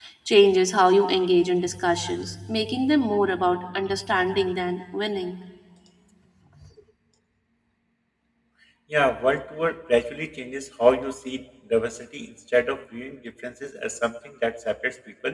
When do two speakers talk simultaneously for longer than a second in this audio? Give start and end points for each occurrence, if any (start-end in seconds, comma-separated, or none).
none